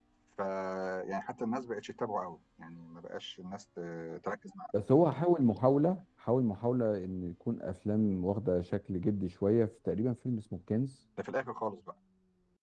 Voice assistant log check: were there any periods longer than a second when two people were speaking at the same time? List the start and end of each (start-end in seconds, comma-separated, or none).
none